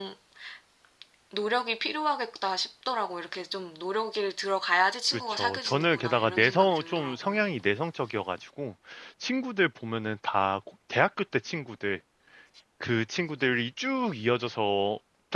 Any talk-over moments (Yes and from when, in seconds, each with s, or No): Yes, from 5.1 s